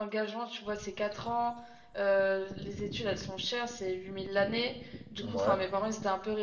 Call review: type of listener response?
listening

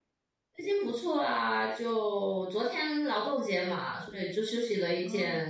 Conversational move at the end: taking over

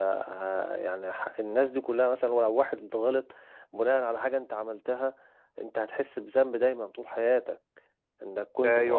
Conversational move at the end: taking over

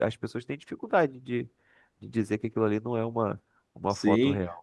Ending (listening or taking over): taking over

